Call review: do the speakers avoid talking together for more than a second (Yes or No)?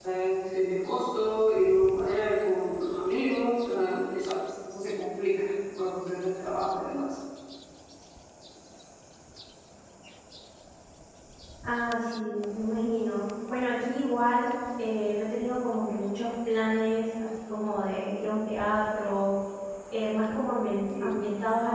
Yes